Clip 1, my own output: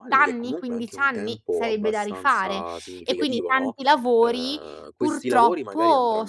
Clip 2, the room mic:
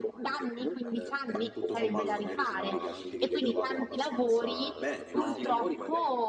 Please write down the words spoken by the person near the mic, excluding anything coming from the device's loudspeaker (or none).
ehm, bah, tutto sommato magari significa anche che vi trovate abbastanza bene, no, quindi